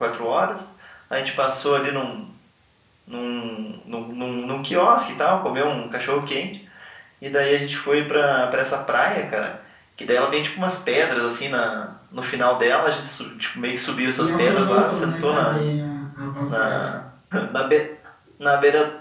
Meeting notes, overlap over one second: present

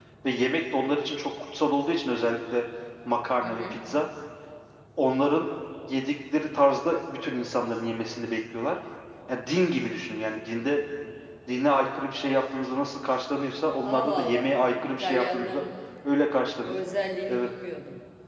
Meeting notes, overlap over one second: present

